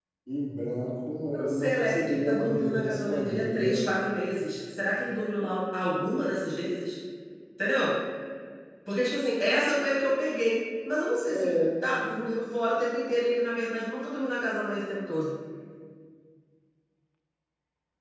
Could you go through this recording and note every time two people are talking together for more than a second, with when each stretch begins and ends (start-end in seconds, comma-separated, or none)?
1.3-3.8